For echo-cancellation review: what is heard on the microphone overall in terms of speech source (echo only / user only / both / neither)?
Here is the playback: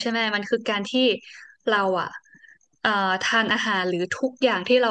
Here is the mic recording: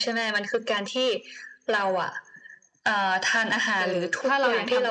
both